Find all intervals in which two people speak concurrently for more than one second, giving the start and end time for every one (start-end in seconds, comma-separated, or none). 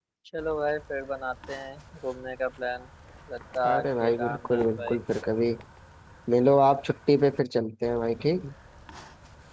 3.7-5.0